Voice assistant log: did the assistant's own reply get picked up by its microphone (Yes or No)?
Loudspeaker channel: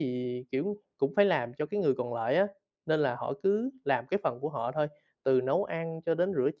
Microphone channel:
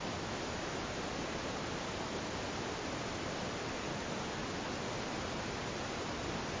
No